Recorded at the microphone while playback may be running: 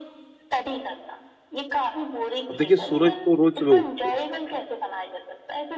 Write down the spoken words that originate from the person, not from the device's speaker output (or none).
अब देखिए सूरज तो रोज़ सुबह उ उ